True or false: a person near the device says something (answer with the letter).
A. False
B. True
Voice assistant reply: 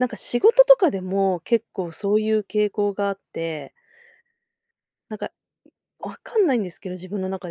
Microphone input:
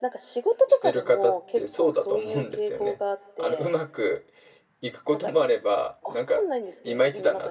B